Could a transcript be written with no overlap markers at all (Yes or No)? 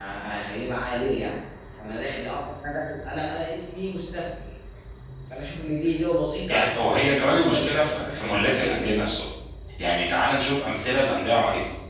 No